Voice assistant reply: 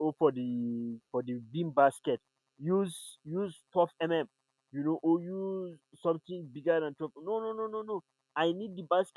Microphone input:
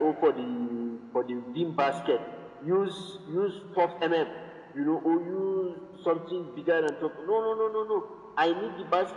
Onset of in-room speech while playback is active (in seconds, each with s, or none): none